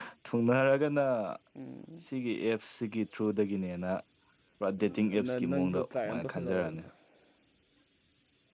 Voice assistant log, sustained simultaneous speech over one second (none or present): present